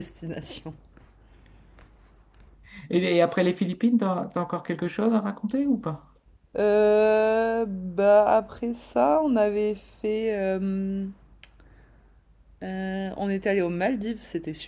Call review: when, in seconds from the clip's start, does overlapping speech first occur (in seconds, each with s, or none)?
none